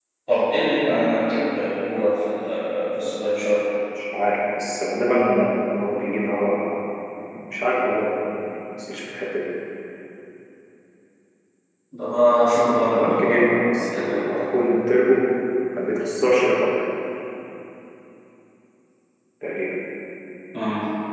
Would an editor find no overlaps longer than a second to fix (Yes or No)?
No